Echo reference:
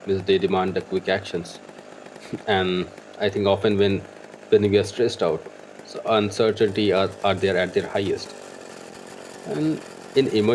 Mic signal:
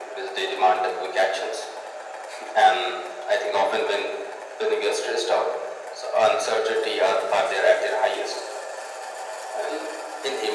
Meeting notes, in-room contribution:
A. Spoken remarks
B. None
B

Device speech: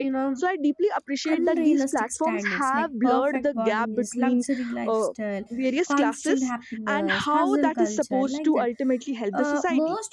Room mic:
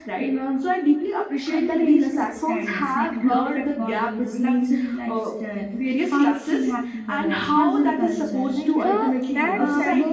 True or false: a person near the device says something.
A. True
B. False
A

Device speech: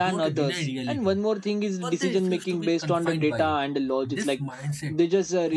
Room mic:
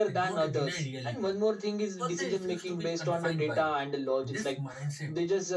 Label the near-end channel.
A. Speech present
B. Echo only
B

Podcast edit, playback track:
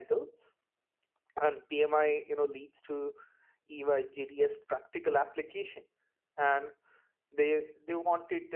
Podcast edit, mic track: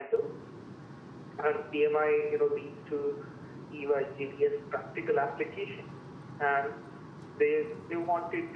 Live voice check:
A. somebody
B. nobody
B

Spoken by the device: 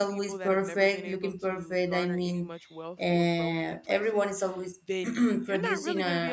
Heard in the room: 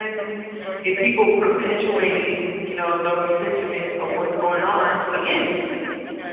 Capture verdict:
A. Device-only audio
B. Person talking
B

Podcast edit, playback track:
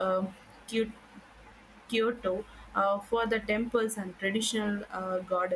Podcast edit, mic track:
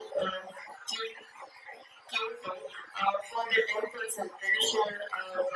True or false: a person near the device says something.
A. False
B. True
A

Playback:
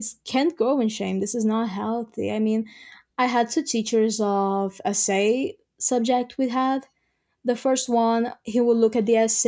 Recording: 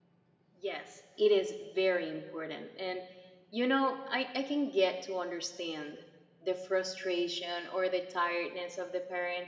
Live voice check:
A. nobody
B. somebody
B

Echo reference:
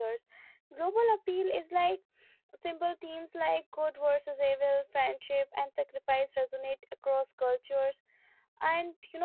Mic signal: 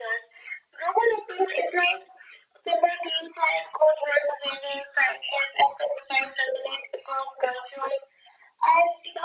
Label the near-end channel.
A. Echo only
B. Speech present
A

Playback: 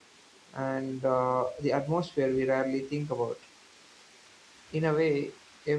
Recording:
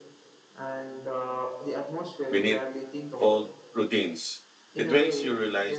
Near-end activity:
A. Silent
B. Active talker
B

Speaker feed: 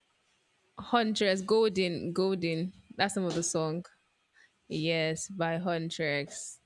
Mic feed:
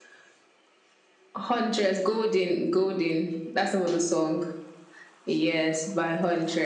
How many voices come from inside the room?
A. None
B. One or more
A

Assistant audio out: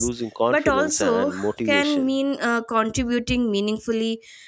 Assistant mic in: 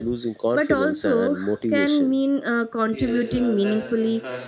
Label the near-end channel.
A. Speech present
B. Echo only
A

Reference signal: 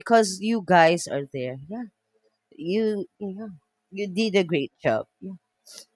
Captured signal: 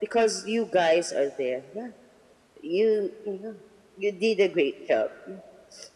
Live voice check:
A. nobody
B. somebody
A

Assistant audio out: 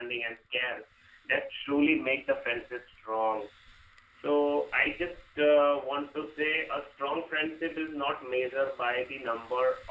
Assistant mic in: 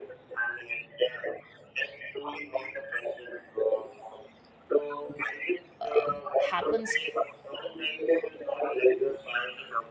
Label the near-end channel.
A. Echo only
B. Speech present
B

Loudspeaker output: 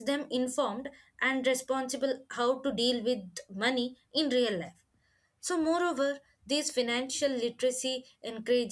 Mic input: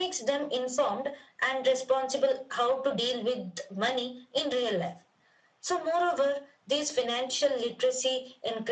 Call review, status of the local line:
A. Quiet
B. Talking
A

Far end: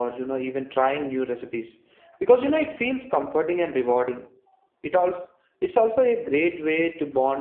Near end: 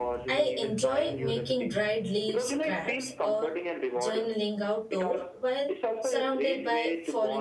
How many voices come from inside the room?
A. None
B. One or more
B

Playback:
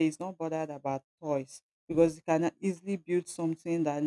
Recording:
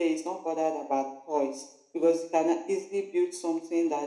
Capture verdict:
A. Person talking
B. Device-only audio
B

